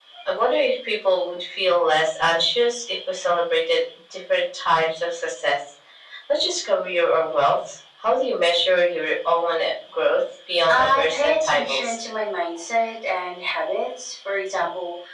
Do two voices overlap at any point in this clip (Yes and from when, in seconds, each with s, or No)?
Yes, from 10.7 s